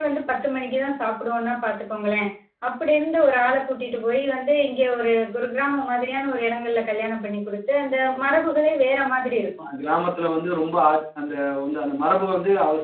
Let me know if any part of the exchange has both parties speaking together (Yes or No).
No